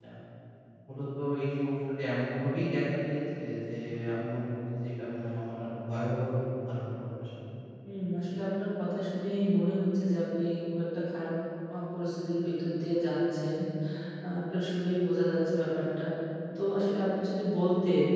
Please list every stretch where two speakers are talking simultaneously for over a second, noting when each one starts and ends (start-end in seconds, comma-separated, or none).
none